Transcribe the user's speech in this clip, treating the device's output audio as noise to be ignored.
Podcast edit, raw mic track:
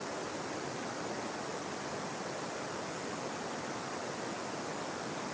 none

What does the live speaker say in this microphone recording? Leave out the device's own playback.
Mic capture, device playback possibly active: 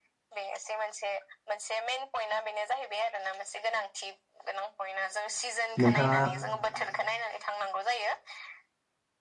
नोंथाङा

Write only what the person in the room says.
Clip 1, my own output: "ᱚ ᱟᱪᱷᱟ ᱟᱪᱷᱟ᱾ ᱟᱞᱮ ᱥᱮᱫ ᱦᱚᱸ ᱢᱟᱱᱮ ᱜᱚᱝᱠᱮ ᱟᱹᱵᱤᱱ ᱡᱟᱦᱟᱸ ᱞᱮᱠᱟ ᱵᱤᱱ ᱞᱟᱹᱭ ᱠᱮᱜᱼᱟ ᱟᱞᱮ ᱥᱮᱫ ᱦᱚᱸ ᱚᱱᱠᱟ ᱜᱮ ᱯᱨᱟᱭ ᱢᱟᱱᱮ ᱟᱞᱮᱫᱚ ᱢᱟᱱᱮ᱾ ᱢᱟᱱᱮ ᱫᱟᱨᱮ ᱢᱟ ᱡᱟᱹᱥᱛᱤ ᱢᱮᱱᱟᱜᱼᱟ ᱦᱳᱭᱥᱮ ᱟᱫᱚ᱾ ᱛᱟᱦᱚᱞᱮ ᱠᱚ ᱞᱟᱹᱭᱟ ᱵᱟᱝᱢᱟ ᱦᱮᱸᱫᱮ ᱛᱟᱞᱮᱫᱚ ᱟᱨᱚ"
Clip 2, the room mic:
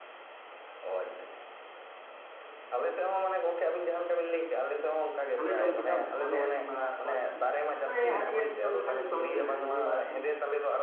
ᱦᱚᱞᱮ ᱡᱚᱢ ᱠᱮᱫᱟ ᱩᱱᱠᱩ ᱦᱚᱸᱞᱮ ᱦᱟᱹᱴᱤᱧ ᱵᱟᱲᱟᱣᱟᱫ ᱠᱚᱣᱟ ᱦᱮᱸ ᱢᱟᱱᱮ ᱦᱟᱹᱴᱤᱧ ᱦᱟᱹᱴᱤᱧ ᱡᱚᱢ ᱞᱮᱠᱷᱟᱱ ᱡᱚᱛᱚ ᱦᱚᱲ ᱜᱮ ᱵᱮᱥ ᱵᱩᱡᱩᱜᱼᱟ ᱦᱮᱸ᱾

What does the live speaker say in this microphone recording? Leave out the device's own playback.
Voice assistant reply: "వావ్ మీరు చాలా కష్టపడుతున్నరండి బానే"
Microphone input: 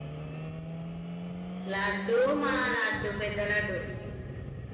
లడ్డు మా లడ్డు పెద్ద లడ్డు

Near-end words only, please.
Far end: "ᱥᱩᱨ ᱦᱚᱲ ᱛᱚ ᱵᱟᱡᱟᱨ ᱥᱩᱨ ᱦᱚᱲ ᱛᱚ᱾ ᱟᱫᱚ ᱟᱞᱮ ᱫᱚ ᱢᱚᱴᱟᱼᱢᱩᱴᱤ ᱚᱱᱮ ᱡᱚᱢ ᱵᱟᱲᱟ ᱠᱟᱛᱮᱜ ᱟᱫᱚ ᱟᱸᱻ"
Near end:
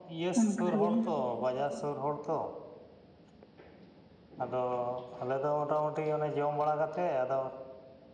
ᱚᱱᱠᱟ ᱜᱮ

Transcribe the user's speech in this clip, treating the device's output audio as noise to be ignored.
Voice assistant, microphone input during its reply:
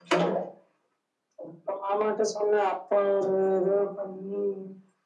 none

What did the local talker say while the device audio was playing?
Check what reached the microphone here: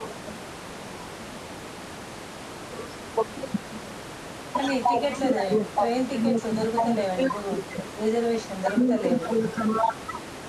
కానీ టికెట్లేదే ట్రైన్ టికెట్లు దొరుకుతలేవండి బో రిజర్వేషన్ దొరుకుత లేవు

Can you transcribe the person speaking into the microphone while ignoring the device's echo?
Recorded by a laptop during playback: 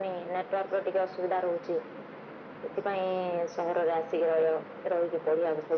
none

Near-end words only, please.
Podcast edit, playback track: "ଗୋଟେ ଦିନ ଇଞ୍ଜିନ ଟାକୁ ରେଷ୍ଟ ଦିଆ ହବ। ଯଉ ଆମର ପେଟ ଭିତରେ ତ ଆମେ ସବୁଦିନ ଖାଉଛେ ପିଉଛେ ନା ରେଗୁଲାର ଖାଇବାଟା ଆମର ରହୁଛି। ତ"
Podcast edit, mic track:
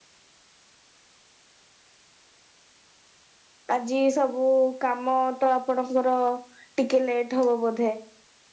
ଆଜି ସବୁ କାମ ତ ଆପଣଙ୍କର ଟିକେ ଲେଟ୍ ହବ ବୋଧ।

